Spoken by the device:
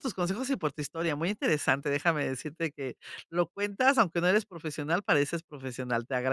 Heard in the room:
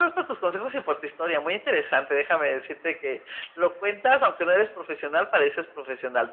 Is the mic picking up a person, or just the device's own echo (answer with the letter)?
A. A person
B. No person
B